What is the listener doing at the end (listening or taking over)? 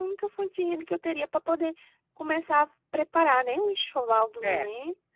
taking over